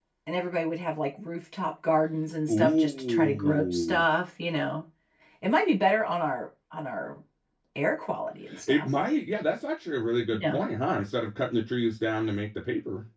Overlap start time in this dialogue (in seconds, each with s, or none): 2.5 s